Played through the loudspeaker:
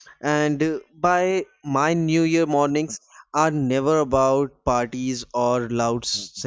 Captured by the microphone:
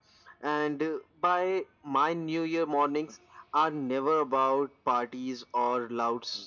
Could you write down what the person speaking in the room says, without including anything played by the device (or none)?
none